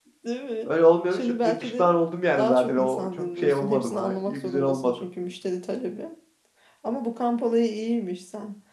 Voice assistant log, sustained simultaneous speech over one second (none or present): present